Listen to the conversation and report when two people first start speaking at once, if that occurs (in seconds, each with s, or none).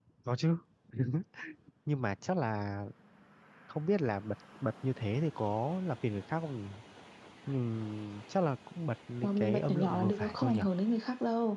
9.2 s